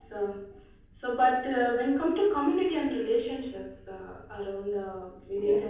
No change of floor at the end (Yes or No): Yes